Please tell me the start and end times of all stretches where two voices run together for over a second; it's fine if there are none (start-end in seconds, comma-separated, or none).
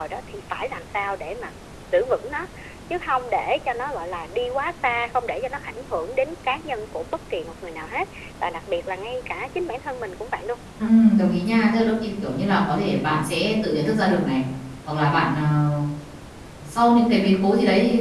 none